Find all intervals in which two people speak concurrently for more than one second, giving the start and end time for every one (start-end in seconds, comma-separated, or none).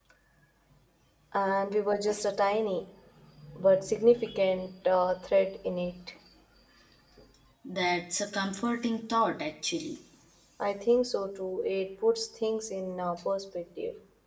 none